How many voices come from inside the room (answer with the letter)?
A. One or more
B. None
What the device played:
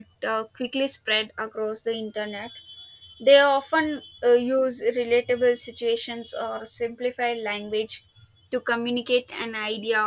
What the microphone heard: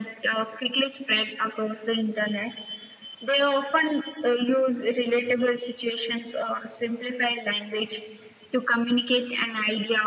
B